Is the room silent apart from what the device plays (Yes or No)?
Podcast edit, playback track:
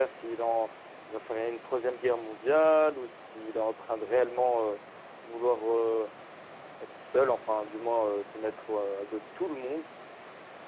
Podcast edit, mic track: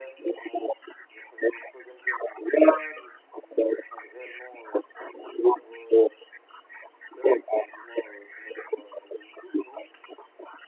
Yes